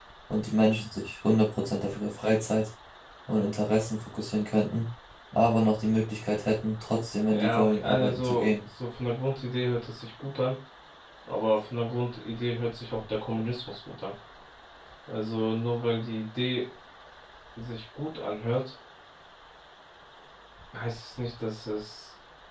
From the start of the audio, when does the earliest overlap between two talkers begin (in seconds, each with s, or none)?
7.3 s